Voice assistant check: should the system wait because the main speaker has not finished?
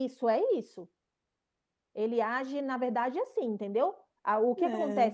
Yes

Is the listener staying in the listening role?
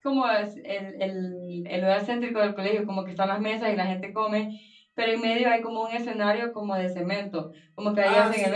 No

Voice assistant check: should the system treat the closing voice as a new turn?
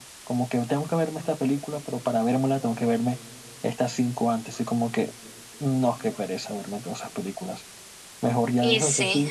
No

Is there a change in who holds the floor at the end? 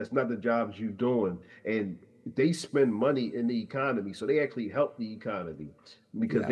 Yes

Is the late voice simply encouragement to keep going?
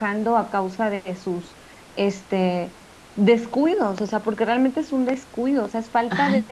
No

